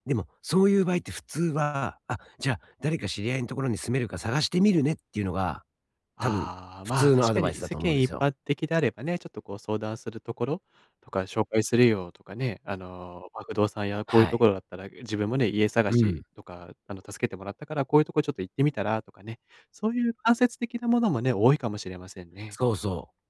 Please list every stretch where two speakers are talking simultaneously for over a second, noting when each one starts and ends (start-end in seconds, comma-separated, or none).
6.8-8.2